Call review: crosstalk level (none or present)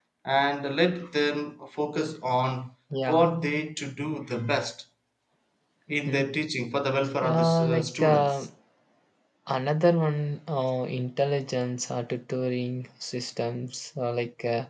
present